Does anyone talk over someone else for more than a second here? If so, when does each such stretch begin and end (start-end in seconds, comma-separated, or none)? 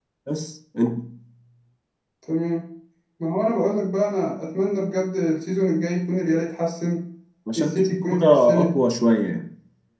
7.6-8.8